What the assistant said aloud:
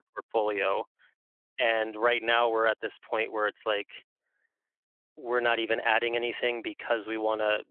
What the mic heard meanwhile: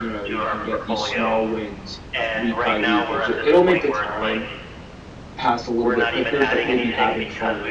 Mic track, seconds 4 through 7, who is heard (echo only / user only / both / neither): both